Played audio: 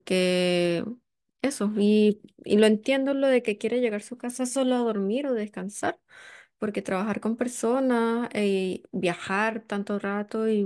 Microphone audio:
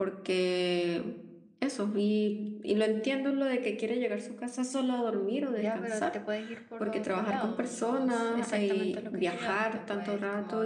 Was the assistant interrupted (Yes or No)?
Yes